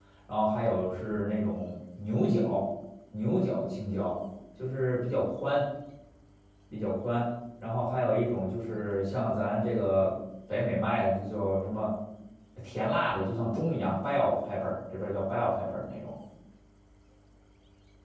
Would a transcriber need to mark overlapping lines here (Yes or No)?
No